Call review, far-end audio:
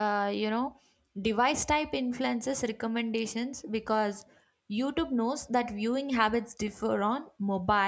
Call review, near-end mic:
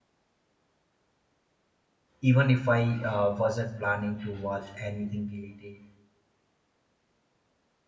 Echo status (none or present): none